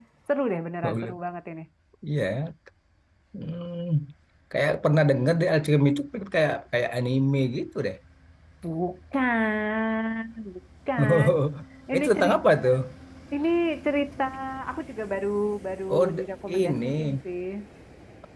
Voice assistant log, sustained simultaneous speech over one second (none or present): present